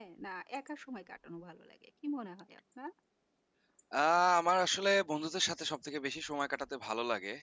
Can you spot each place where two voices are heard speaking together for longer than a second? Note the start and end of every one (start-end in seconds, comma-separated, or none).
none